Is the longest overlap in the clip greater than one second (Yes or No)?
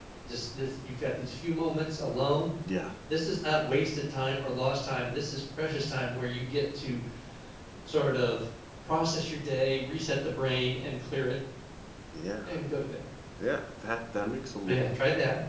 No